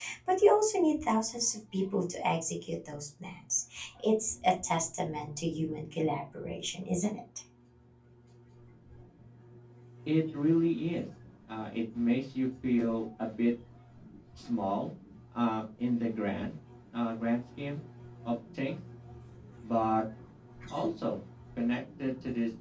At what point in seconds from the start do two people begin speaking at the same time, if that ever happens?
none

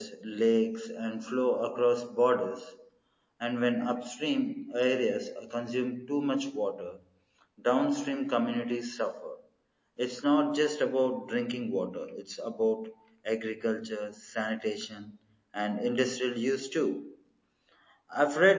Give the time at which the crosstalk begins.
none

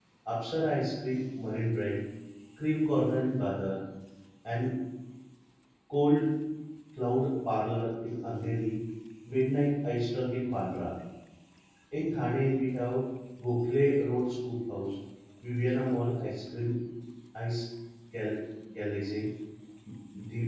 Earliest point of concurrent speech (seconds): none

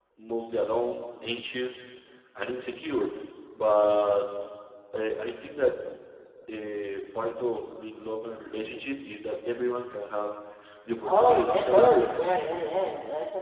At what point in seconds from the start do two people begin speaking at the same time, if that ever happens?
11.1 s

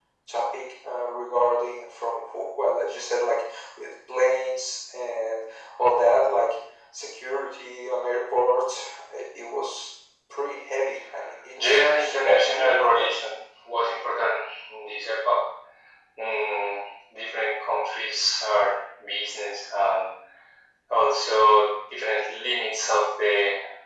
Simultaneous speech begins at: 11.6 s

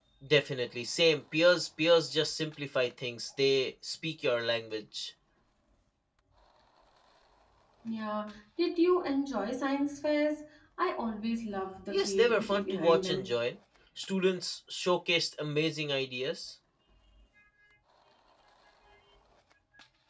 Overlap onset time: 11.9 s

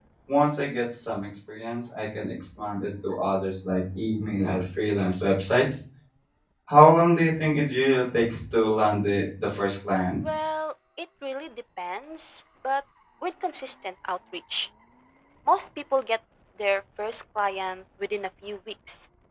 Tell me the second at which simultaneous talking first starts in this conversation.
none

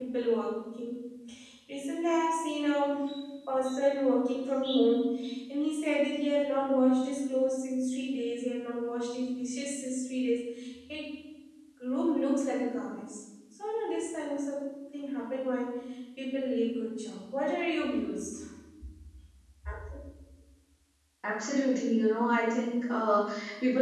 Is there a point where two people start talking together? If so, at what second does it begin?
none

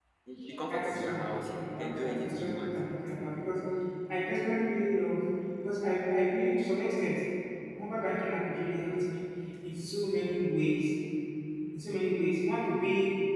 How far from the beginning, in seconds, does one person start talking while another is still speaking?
0.6 s

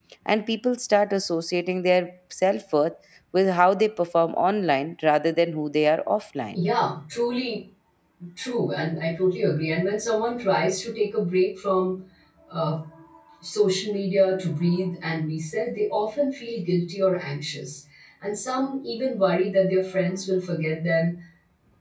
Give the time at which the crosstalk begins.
none

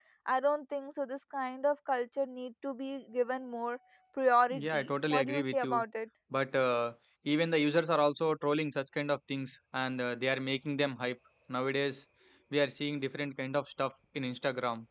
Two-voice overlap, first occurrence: 4.5 s

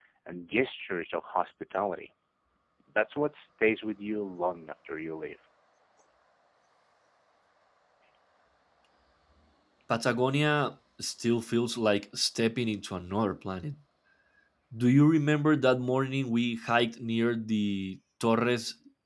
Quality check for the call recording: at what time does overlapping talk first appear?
none

